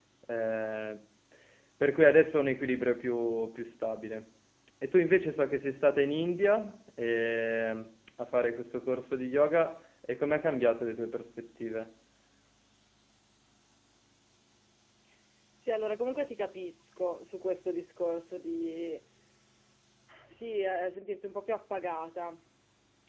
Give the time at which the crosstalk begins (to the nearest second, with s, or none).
none